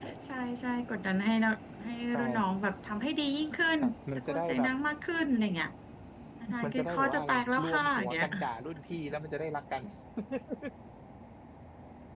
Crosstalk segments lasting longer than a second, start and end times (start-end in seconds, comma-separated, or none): 6.6-8.2